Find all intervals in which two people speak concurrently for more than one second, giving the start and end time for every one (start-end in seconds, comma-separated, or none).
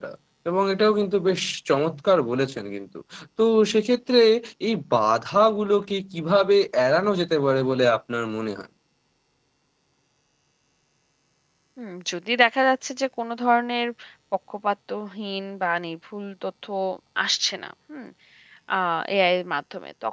none